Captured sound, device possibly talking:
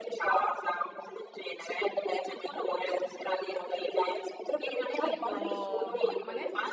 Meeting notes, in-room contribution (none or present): present